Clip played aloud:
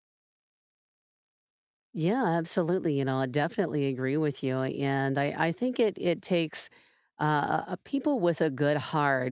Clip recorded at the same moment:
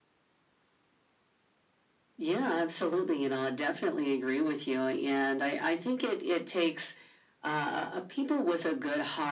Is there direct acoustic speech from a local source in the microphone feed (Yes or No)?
No